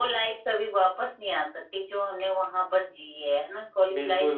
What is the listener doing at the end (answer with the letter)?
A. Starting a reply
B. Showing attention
A